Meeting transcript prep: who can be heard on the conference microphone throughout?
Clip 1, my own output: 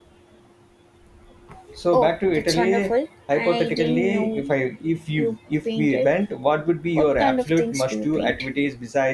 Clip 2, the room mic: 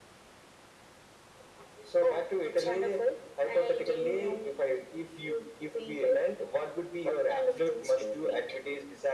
echo only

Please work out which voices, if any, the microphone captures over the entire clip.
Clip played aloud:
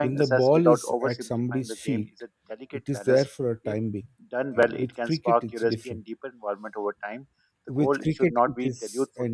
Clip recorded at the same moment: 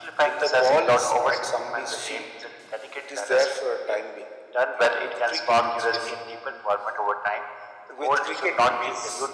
echo only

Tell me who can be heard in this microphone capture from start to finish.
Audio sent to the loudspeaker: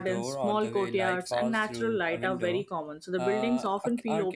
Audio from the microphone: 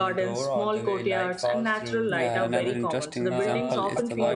both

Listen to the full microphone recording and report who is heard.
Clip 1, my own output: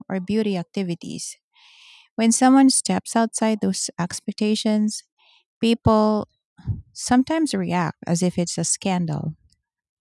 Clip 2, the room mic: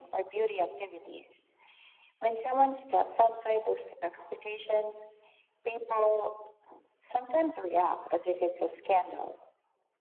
echo only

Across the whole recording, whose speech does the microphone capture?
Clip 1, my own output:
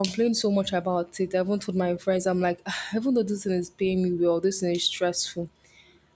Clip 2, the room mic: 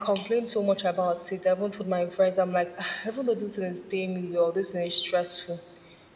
echo only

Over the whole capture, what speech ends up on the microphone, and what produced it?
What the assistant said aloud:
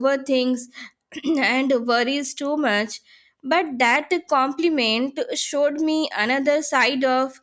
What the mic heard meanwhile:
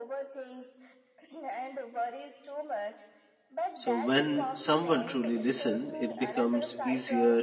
both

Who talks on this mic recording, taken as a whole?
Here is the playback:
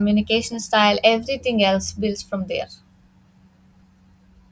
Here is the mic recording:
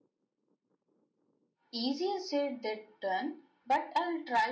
user only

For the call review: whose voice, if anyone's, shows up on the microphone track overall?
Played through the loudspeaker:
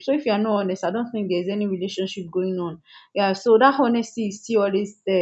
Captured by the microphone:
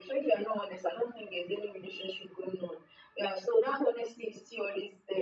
echo only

